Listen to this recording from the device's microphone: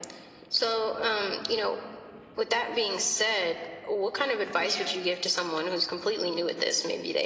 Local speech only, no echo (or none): Yeah,